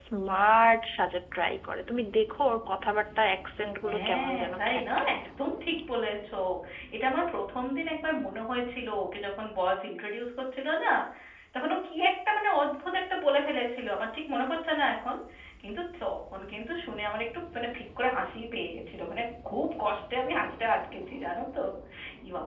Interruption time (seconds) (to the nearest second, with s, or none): 4 s